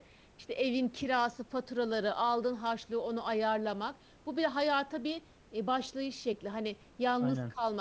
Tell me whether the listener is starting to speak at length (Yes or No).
No